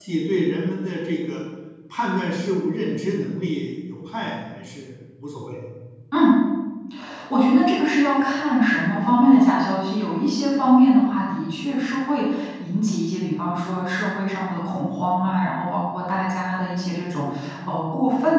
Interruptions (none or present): none